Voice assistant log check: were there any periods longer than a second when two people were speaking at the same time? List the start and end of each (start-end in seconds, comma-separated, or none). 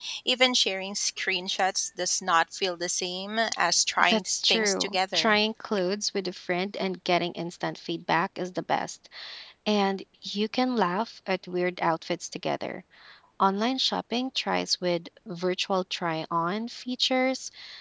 4.1-5.4